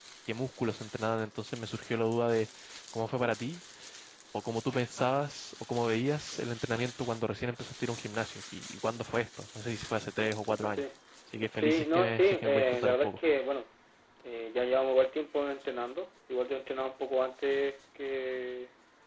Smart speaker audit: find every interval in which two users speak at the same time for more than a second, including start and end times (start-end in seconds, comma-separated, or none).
11.5-13.2